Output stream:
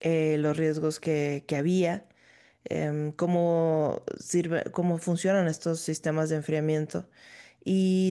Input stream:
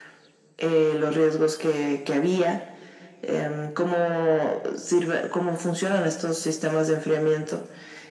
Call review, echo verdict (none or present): present